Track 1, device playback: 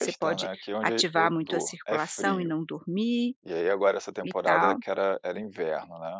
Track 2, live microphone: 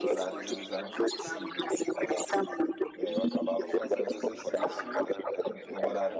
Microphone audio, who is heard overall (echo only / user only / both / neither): both